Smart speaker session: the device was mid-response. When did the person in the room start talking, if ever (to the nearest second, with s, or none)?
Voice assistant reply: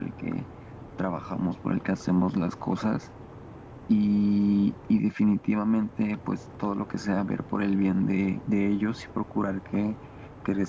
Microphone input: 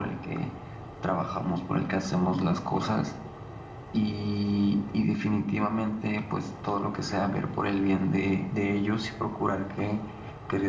none